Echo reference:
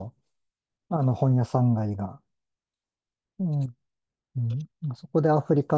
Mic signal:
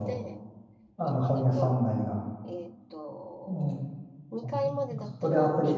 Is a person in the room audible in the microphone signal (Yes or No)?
Yes